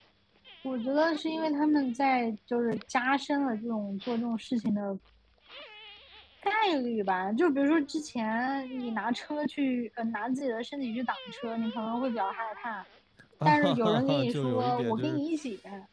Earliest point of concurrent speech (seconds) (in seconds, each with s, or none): 13.4 s